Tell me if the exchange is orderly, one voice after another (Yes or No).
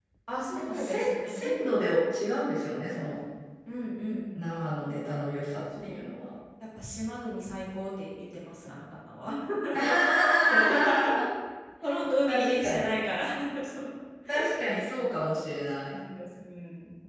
No